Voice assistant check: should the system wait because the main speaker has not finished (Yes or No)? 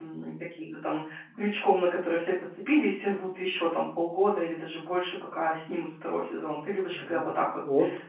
No